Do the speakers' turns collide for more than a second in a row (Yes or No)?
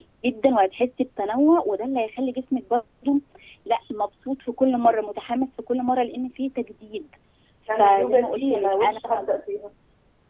Yes